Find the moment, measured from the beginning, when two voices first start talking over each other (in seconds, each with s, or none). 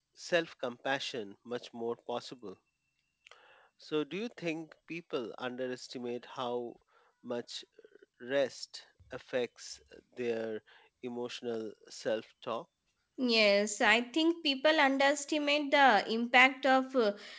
none